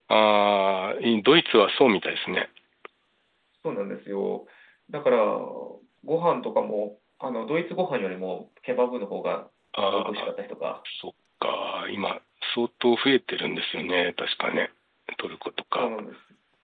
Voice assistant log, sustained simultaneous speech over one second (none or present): none